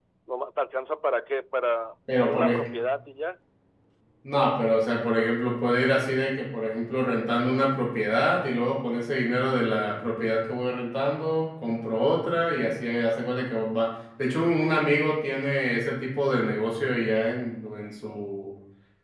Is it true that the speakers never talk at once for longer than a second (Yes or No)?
Yes